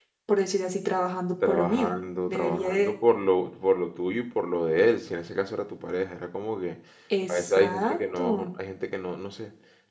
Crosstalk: present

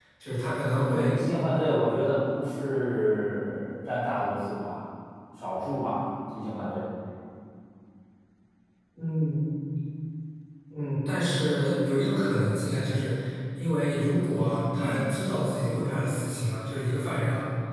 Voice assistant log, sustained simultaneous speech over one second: none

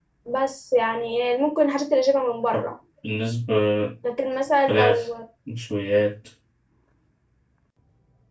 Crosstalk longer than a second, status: none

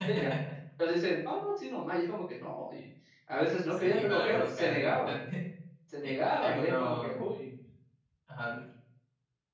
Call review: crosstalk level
present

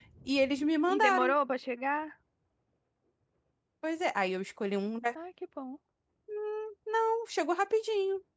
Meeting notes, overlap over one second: none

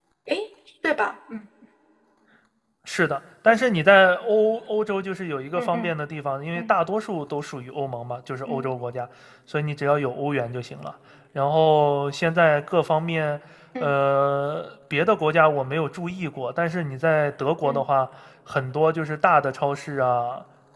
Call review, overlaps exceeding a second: none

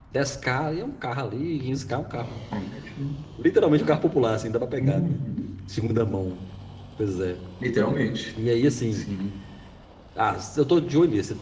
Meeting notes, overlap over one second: none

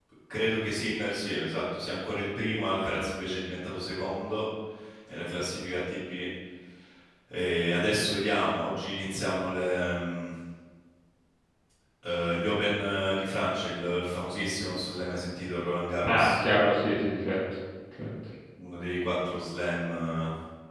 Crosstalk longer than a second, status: none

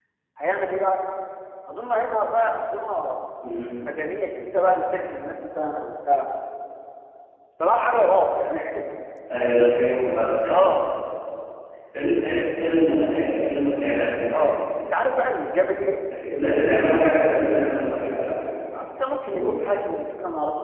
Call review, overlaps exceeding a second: none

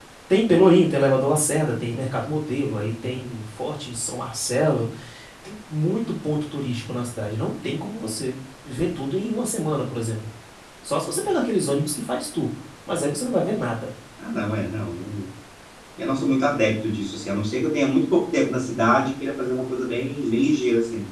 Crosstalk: none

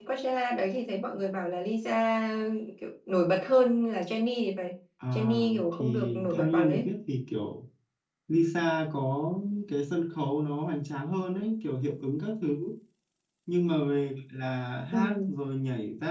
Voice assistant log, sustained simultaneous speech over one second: present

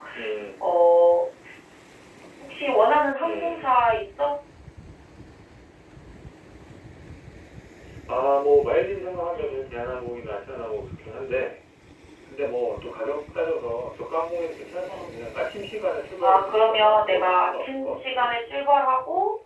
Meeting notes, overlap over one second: present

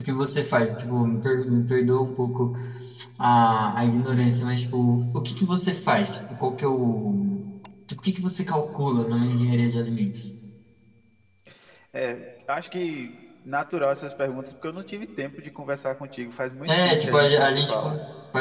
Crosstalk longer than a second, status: present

